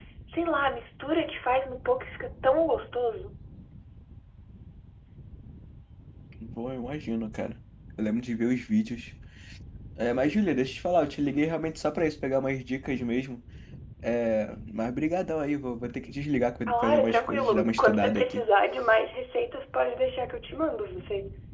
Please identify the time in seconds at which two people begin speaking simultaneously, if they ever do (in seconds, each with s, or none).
16.7 s